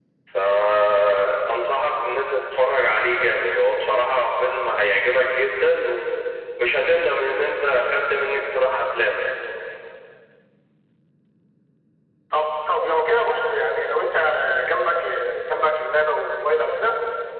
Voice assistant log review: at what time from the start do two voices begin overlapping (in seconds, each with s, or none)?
none